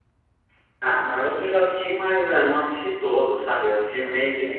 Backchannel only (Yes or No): No